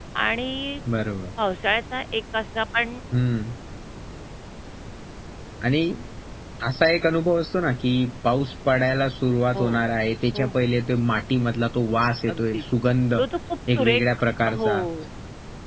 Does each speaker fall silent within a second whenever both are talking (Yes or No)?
Yes